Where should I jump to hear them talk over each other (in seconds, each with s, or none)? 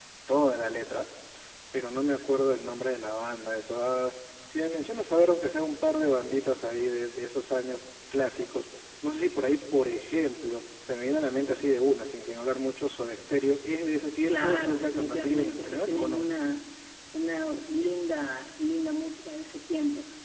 14.3 s